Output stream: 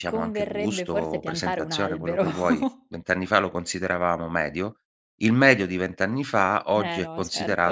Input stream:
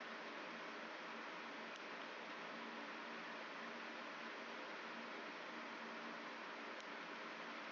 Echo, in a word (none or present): none